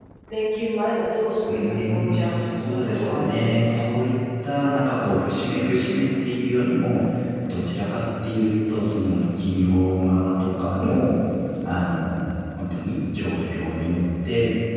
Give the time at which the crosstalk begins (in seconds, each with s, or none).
1.5 s